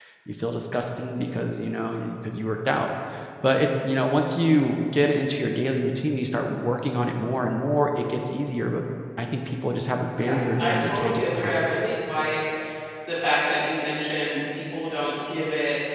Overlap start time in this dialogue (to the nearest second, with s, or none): 10 s